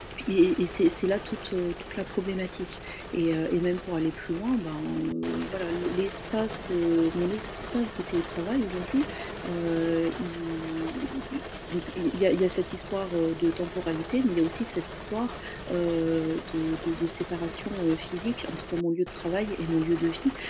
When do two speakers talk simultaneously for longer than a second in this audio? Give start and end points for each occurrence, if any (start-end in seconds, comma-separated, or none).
none